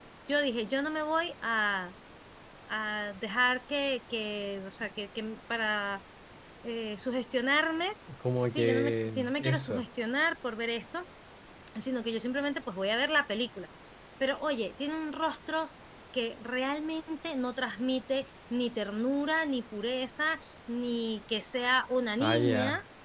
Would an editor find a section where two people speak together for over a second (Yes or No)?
Yes